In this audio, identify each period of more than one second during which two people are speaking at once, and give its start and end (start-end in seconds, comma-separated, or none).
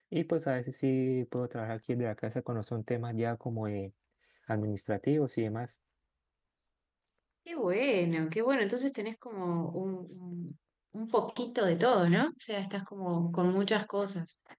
none